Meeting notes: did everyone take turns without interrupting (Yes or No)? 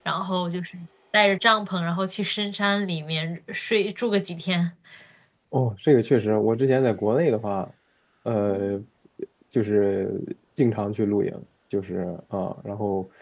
Yes